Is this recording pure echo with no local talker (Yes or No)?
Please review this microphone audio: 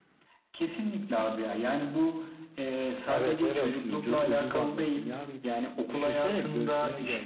No